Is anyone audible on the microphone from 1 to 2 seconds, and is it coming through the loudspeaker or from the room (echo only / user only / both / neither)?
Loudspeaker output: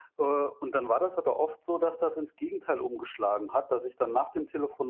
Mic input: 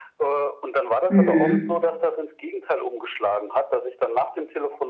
both